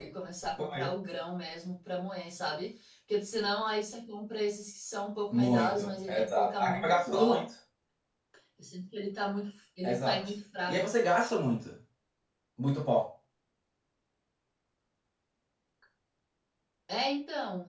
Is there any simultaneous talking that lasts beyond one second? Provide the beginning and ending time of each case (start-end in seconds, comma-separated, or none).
5.3-7.4